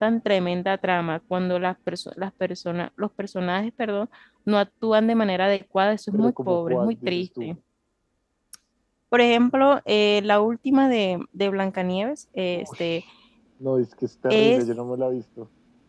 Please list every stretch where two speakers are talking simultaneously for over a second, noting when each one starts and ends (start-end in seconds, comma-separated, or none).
6.1-7.5